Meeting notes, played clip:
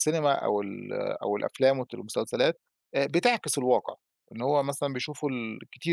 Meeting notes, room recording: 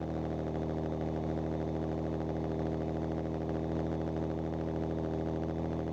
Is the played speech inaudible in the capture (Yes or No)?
Yes